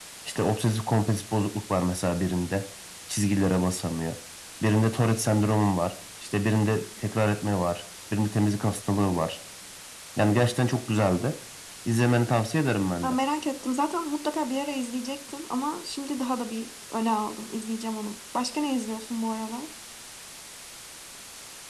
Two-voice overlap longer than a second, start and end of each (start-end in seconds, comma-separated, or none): none